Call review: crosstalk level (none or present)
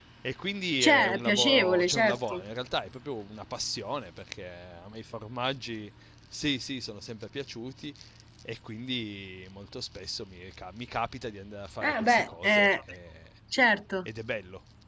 present